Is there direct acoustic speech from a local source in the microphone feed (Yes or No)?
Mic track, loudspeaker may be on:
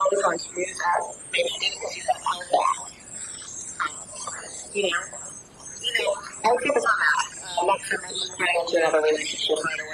No